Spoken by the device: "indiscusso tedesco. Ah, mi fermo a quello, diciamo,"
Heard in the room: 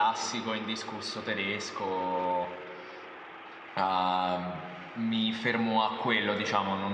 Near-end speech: none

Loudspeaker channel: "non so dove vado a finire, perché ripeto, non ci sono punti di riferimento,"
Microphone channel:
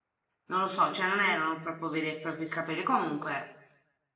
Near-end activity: present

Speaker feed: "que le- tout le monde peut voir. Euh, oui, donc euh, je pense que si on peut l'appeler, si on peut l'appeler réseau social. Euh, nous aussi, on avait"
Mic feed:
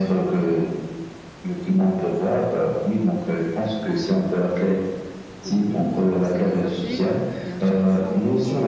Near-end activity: present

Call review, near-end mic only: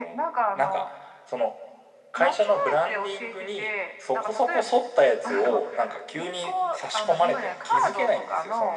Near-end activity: none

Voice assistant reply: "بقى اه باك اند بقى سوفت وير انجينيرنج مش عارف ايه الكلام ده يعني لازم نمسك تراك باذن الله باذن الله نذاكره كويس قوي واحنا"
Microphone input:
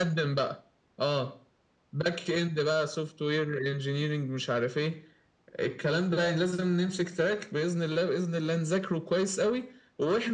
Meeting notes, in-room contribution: none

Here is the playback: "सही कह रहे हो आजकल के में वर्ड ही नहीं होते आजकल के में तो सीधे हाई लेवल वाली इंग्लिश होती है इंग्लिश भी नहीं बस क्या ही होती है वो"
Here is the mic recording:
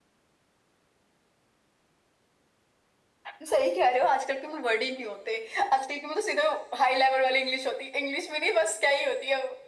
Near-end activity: none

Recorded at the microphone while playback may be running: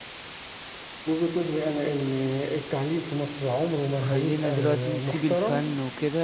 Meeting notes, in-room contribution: present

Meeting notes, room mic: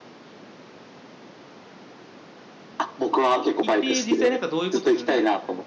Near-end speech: present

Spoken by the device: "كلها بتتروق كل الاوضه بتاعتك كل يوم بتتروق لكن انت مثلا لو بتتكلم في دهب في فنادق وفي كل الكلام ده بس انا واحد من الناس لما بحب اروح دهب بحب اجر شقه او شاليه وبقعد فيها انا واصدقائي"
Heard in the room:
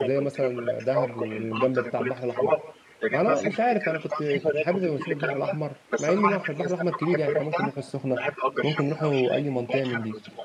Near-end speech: present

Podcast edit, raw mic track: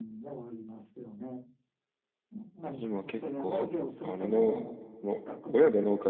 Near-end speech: present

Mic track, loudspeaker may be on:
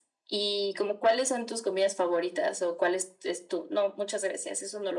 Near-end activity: none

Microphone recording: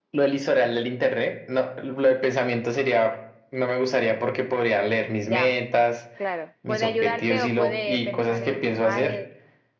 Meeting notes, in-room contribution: present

